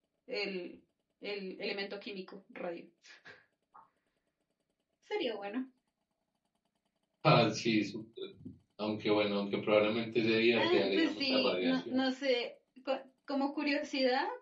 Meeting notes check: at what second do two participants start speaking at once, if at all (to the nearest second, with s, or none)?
11 s